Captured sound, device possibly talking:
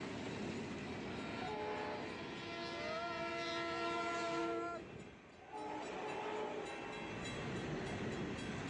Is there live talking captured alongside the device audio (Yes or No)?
No